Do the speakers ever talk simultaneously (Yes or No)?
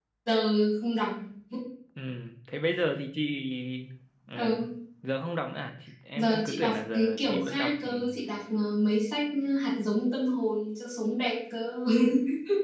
Yes